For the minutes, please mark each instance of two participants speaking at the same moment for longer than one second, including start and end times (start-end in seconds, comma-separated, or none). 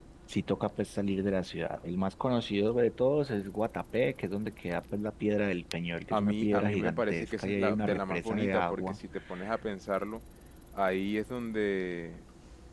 6.1-9.0